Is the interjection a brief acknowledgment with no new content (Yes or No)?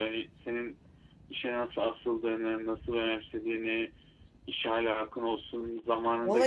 No